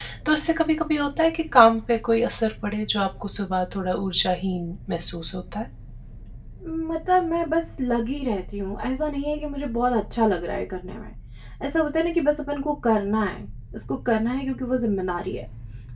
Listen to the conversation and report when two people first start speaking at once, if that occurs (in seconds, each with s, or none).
none